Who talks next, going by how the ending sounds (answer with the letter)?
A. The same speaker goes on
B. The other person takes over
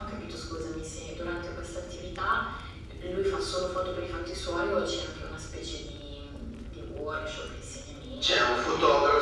B